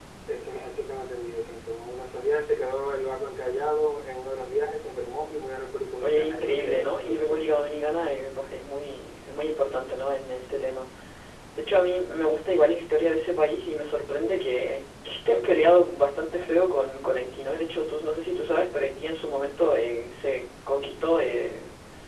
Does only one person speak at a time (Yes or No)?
No